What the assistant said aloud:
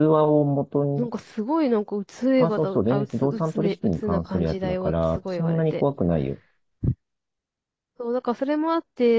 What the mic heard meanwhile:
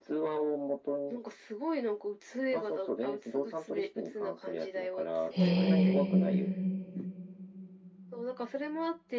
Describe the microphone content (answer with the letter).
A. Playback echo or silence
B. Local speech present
B